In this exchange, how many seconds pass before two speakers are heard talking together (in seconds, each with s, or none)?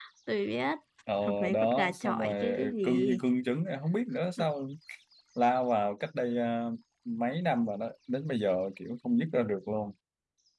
1.5 s